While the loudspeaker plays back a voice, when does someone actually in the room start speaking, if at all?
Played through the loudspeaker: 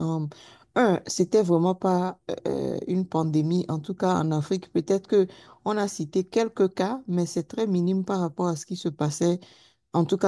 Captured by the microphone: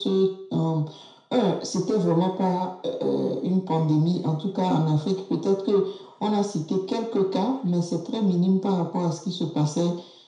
none

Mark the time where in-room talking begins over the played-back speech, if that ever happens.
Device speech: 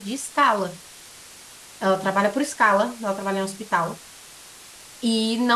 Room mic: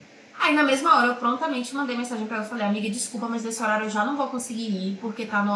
0.4 s

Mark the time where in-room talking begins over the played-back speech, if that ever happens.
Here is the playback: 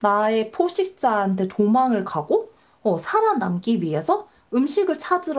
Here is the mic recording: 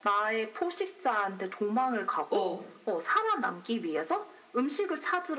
2.3 s

